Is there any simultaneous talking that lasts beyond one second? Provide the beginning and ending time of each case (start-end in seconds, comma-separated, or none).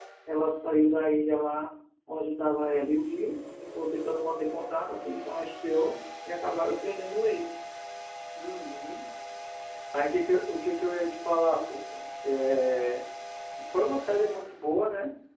none